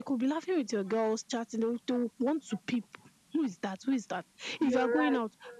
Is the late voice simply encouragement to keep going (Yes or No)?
Yes